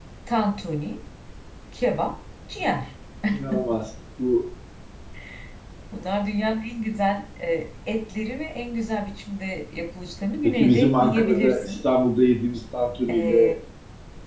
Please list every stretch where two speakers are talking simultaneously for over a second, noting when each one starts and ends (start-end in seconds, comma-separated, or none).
10.4-11.7